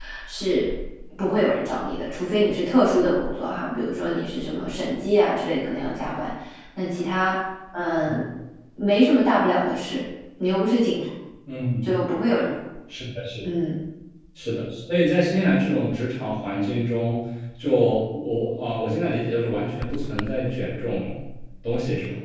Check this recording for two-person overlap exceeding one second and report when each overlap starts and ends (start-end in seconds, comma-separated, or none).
none